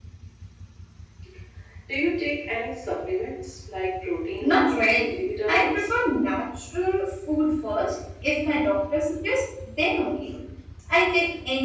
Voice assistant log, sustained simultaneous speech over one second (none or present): present